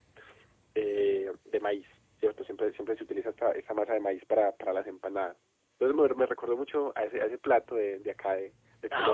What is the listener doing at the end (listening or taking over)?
taking over